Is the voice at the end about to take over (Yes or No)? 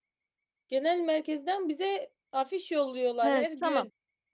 Yes